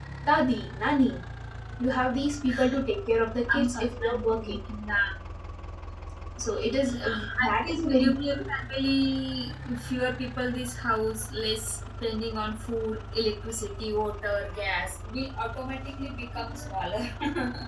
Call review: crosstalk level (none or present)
present